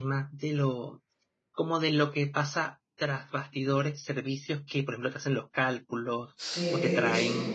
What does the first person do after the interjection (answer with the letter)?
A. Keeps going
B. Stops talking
B